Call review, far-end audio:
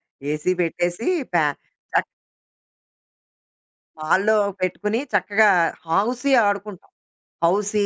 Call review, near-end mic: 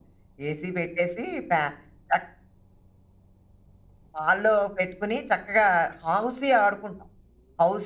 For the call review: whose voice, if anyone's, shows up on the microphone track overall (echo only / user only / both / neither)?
echo only